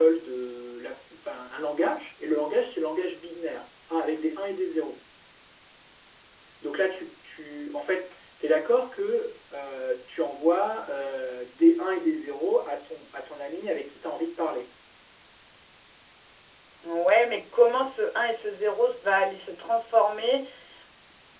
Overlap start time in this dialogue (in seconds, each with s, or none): none